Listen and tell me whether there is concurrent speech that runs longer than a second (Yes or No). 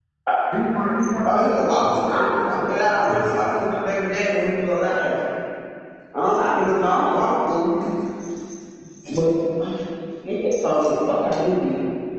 Yes